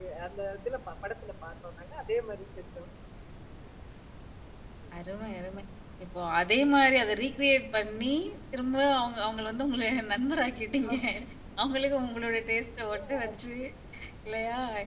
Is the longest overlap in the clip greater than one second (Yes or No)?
No